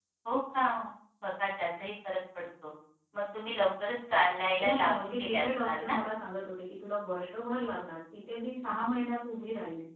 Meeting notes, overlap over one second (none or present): present